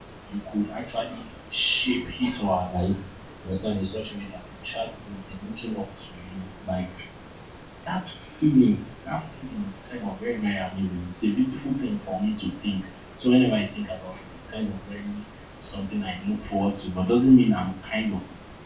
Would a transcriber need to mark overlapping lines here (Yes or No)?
No